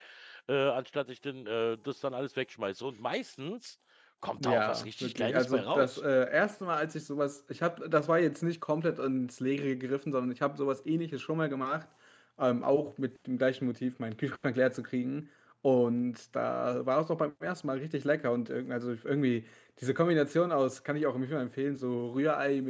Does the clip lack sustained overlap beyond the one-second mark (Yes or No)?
No